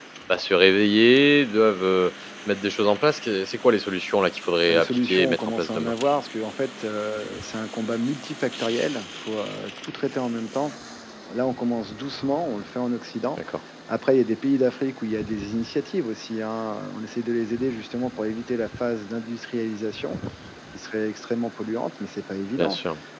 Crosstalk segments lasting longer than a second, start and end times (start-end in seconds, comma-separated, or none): 4.7-5.9